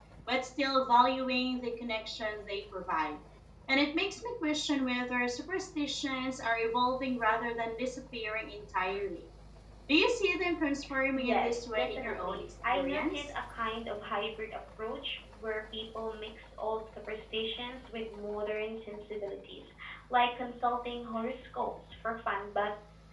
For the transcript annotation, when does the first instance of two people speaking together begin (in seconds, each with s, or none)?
11.2 s